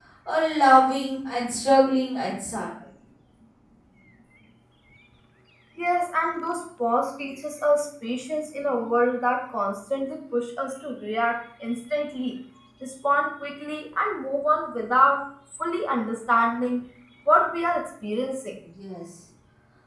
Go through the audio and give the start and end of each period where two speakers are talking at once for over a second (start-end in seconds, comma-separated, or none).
none